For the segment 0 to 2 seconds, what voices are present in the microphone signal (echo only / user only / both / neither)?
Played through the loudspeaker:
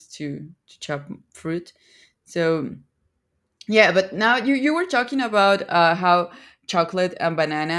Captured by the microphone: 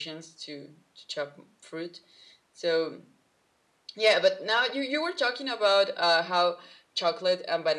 echo only